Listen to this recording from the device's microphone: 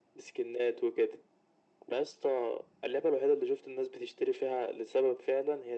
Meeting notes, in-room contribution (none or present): none